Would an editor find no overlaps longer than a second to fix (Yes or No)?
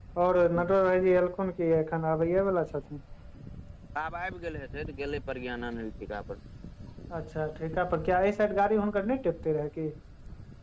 Yes